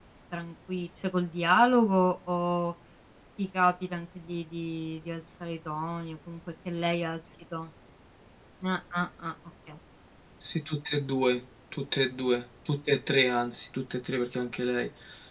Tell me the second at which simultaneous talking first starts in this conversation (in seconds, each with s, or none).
none